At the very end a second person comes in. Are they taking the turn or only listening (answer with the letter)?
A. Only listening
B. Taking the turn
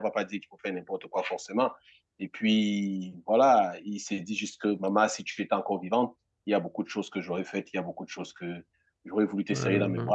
A